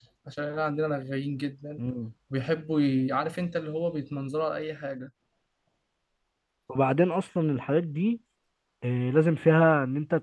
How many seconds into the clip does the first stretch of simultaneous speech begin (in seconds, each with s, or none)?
none